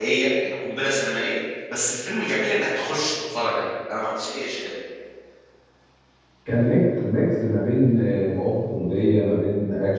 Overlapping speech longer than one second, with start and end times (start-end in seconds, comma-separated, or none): none